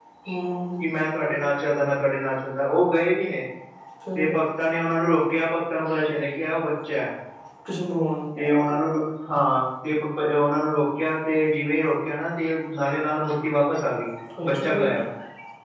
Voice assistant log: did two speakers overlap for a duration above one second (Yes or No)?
No